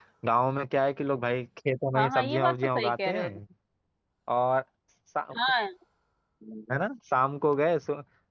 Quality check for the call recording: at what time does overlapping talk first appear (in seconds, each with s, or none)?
1.9 s